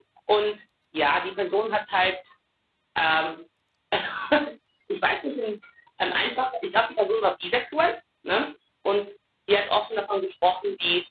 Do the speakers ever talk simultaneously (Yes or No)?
No